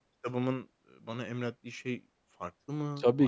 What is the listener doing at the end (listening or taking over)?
taking over